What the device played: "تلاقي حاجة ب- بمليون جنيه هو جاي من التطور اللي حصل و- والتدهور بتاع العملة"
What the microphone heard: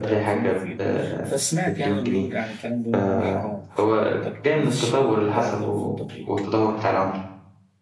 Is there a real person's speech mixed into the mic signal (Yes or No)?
Yes